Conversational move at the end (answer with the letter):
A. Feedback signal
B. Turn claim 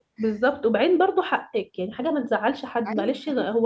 A